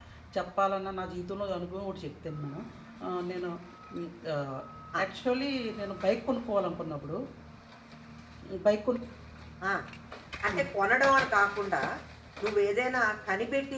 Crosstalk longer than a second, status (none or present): none